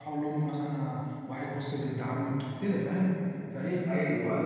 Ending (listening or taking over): listening